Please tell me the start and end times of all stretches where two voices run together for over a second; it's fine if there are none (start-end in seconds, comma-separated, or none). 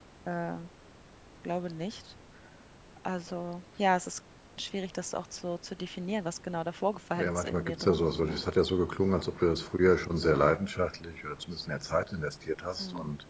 7.2-8.4